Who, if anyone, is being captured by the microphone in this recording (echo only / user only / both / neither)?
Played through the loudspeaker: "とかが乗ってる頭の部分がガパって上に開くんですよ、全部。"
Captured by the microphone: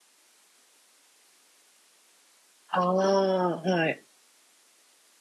user only